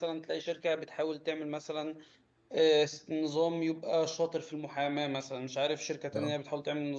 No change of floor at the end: Yes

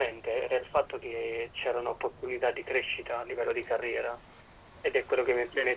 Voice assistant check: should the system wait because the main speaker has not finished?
No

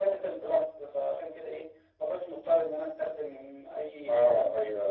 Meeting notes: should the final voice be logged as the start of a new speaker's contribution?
Yes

